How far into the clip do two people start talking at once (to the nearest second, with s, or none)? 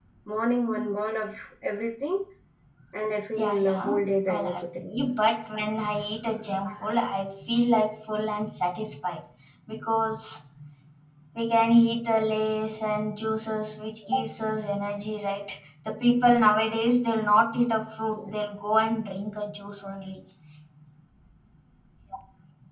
3 s